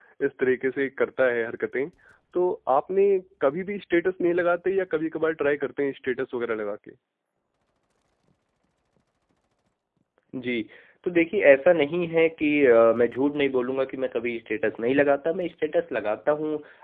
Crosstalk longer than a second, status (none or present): none